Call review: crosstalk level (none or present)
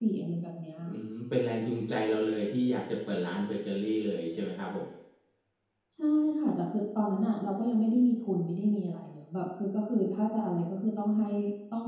none